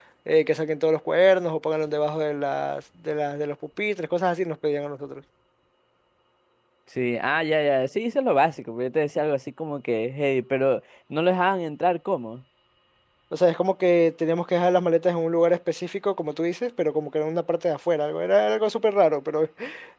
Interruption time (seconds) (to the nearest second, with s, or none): none